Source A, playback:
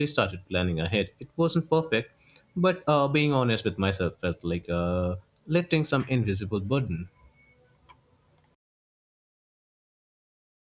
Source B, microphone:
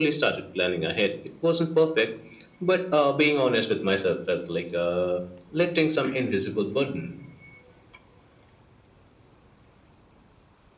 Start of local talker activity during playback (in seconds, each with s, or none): none